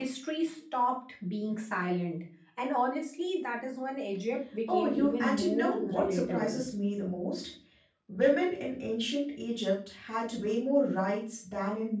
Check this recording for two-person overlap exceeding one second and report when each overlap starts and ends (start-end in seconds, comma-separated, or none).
4.7-6.6